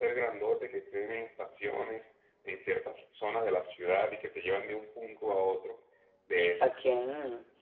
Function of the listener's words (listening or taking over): taking over